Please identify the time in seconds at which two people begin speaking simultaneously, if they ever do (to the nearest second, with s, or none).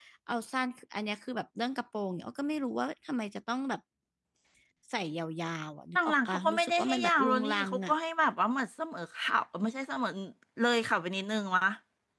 6 s